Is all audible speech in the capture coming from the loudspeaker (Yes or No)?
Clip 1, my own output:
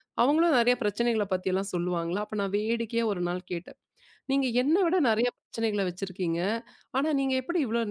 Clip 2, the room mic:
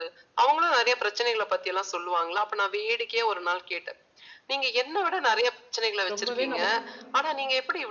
No